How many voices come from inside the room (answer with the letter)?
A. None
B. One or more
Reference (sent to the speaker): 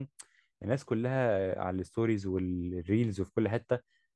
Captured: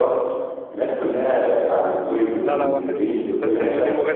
B